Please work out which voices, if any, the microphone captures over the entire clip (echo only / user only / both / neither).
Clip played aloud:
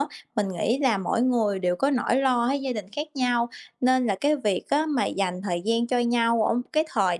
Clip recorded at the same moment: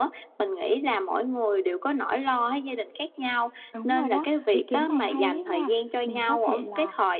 both